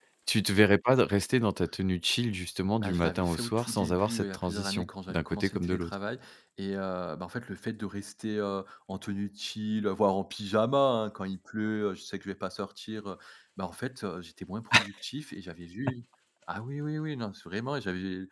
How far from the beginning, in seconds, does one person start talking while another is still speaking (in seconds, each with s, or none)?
2.7 s